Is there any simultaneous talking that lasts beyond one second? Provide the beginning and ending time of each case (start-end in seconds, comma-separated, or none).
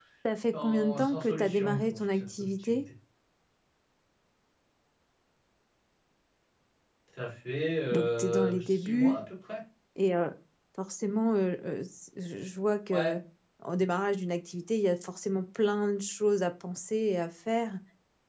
0.6-2.8, 7.9-9.2